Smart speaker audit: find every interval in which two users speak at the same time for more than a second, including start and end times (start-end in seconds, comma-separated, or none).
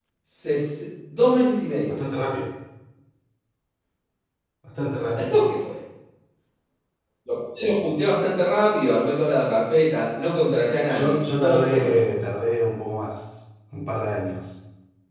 10.9-12.3